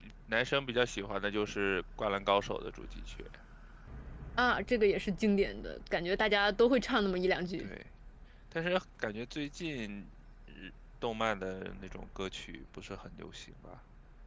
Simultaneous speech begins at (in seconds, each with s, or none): none